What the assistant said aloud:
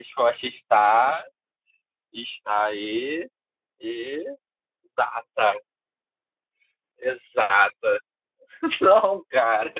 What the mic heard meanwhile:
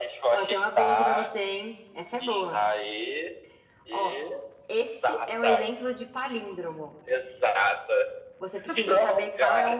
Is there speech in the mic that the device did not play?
Yes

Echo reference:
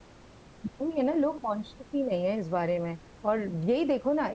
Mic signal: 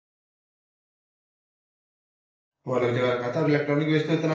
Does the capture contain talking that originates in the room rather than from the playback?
Yes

